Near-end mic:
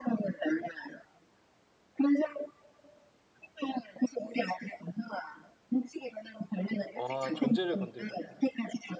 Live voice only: 와 존재를 건드리셨구나.

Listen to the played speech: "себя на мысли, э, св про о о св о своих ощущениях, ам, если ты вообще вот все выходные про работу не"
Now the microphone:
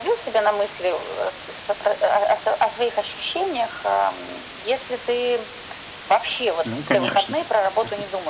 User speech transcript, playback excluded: Ну, конечно. Мгм.

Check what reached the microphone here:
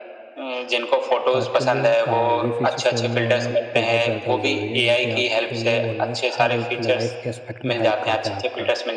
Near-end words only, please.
तो आपके लिए अ, ये फ़ीचर फ़ोन में होना बहुत ज़्यादा ज़रूरी है क्योंकि आपके लिए ऑलमोस्ट हर एक लाइफ़ के एस्पेक्ट में हेल्प करता है आपका।

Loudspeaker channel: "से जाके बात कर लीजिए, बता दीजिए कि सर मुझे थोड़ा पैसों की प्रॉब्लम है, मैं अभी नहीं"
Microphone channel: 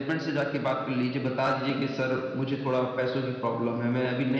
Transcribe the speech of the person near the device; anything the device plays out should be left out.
none

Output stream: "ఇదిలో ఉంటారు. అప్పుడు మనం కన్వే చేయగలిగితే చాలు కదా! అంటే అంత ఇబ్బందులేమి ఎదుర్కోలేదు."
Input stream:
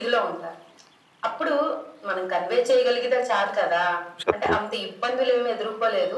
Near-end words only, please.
శత్రువు.

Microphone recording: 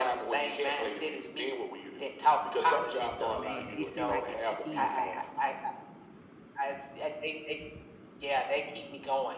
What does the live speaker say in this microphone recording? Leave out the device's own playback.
Man, it seemed like it kick in faster.

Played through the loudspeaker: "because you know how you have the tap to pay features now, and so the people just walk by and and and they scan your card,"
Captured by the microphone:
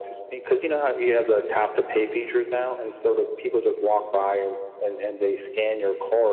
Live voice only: none

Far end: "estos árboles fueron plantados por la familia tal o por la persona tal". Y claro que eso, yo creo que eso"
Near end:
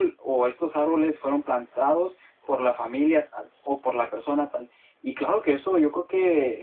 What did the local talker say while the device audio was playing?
none

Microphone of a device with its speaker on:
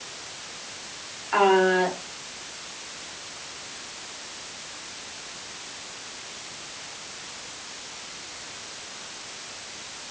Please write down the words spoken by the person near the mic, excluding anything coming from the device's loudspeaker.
ah,

